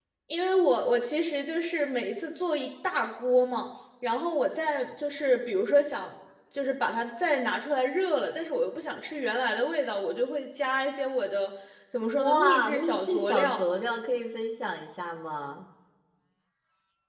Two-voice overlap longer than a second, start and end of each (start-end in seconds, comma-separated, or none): 12.2-13.6